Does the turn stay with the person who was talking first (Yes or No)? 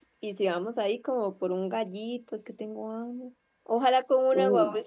Yes